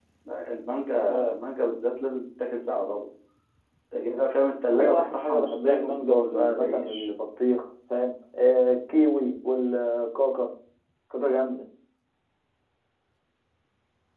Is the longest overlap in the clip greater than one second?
Yes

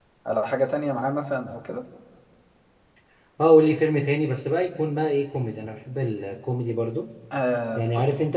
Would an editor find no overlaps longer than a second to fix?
Yes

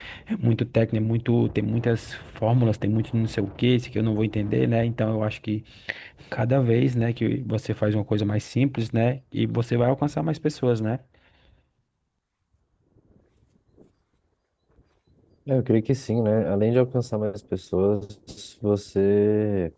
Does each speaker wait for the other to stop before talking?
Yes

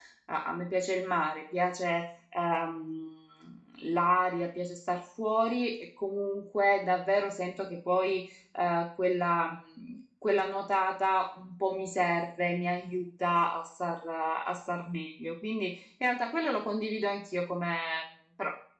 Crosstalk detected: No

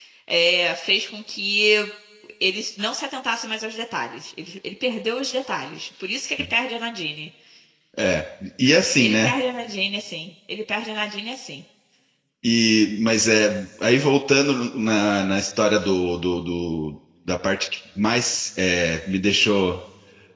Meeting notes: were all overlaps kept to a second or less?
Yes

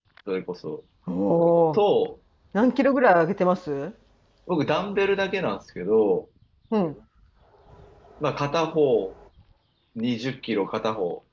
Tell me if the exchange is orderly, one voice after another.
Yes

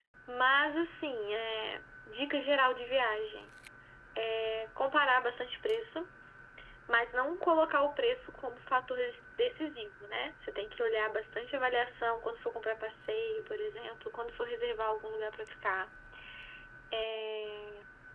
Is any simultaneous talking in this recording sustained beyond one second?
No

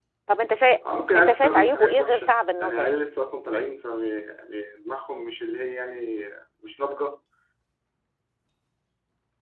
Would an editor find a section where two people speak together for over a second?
Yes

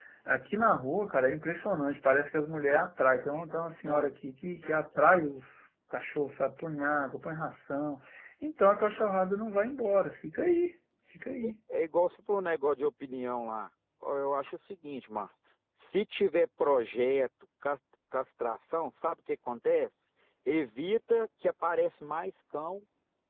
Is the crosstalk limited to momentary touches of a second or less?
Yes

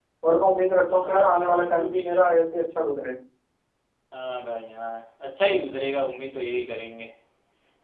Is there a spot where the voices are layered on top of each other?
Yes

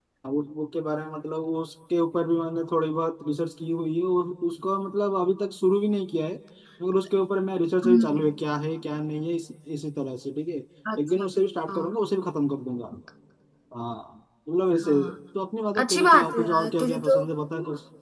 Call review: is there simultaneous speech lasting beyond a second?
Yes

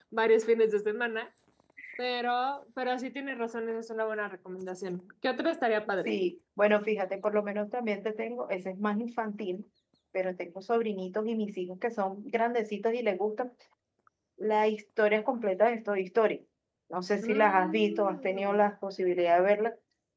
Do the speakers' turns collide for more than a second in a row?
Yes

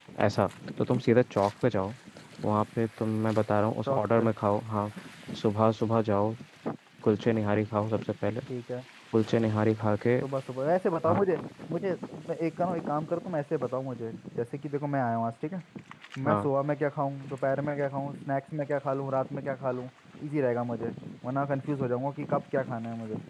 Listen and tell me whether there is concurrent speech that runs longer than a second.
No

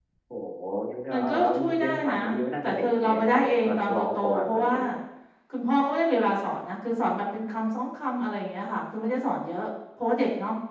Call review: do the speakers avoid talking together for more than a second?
No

